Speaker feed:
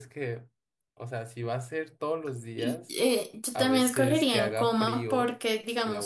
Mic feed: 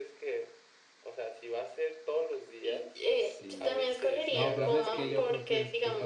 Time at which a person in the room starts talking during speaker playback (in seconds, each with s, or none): 3.1 s